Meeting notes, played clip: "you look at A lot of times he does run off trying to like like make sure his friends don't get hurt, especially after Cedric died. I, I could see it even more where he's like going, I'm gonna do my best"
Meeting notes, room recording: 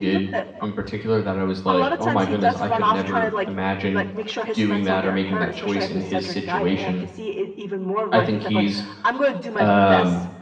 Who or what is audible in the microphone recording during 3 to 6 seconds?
both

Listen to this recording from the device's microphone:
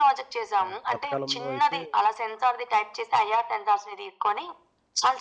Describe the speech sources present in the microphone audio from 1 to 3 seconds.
both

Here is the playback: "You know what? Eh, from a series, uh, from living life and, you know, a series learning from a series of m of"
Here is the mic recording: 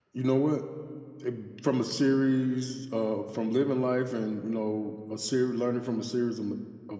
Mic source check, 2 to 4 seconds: echo only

